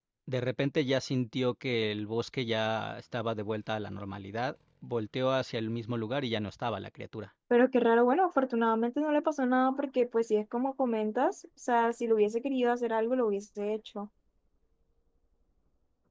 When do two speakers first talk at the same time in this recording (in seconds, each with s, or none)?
none